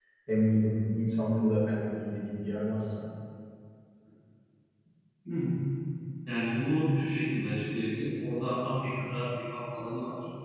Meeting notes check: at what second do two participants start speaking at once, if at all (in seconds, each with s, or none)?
none